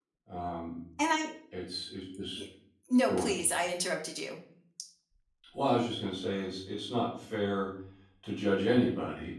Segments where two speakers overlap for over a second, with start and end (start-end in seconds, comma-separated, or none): none